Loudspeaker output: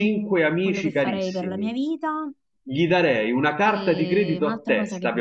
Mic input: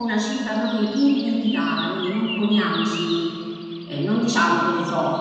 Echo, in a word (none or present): none